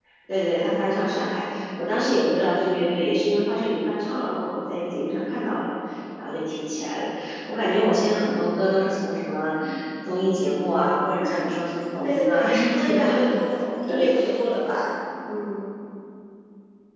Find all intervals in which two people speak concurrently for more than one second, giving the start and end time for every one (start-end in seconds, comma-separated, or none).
12.0-13.2